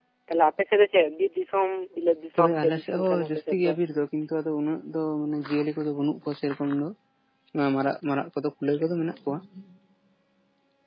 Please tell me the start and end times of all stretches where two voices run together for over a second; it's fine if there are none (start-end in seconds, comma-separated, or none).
2.4-3.7